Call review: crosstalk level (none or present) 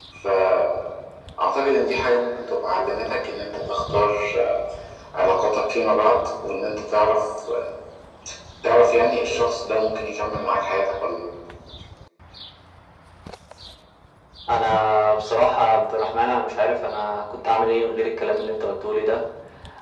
none